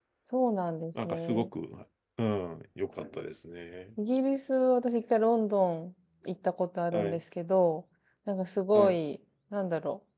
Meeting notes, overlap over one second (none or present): none